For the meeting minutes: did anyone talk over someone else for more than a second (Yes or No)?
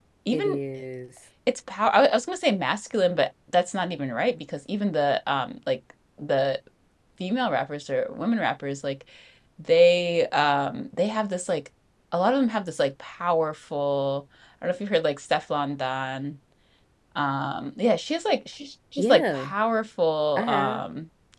No